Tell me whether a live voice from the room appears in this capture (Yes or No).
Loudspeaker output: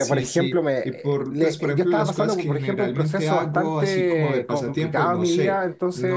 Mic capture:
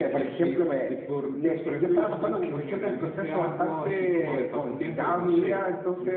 No